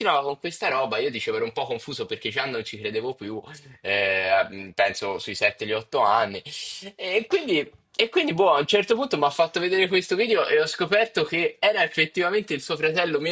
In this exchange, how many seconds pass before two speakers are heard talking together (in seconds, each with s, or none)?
none